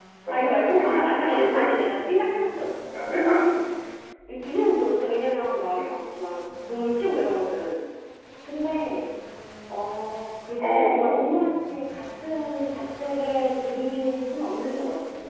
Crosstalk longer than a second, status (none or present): present